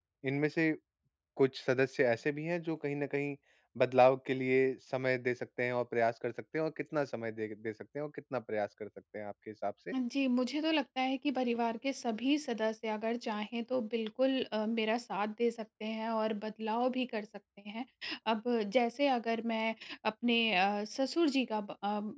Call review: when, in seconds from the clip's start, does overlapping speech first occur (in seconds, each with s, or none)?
none